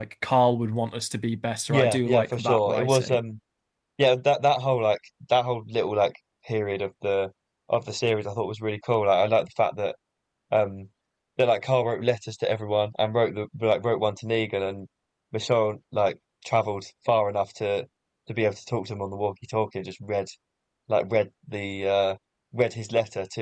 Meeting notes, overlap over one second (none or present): present